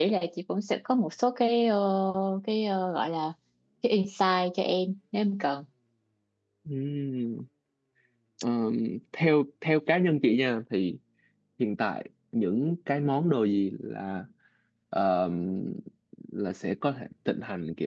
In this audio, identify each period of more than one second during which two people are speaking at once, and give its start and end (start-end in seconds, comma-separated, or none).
none